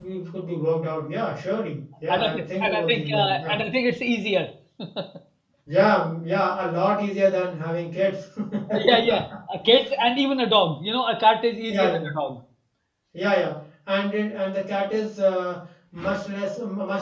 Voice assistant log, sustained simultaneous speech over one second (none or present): present